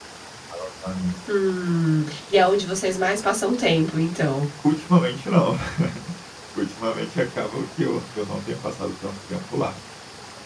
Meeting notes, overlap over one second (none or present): none